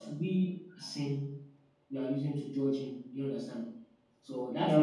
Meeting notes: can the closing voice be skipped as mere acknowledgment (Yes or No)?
Yes